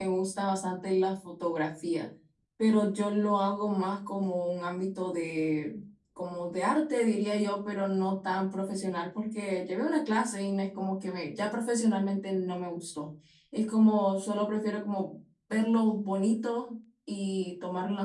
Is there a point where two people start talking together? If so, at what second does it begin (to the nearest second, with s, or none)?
none